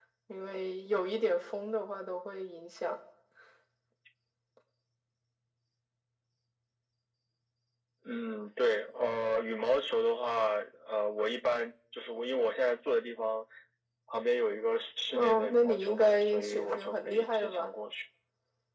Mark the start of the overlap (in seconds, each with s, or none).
15.1 s